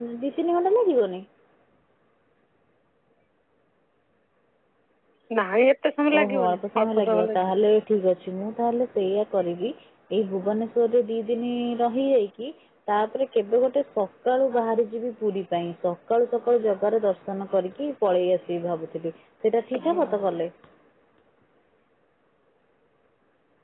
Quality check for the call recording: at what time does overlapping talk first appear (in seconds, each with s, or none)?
6.2 s